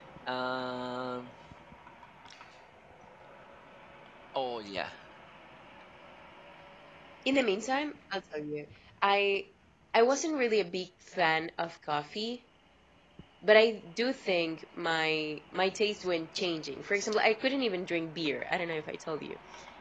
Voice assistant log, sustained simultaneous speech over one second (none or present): none